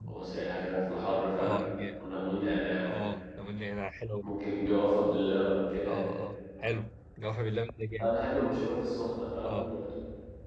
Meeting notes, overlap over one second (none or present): none